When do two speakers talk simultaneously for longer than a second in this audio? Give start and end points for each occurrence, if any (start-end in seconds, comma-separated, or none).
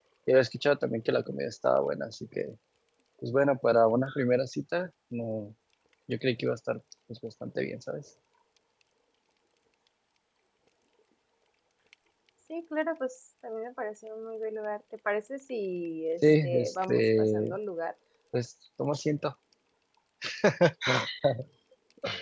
16.2-17.5